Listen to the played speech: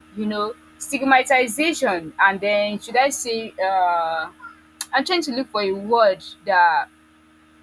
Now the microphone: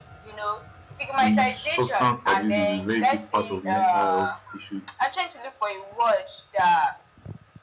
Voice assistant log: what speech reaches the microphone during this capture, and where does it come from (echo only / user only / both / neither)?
both